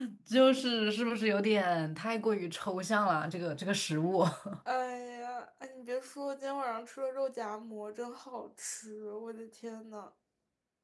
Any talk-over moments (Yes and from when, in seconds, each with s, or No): No